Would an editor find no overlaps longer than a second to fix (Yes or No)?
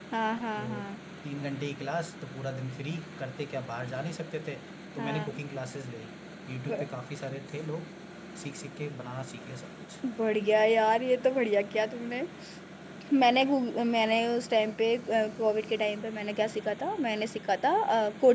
Yes